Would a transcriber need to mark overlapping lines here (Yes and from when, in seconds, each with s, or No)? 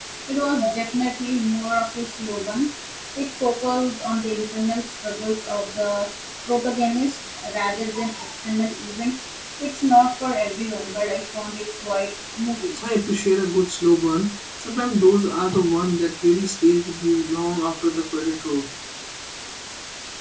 No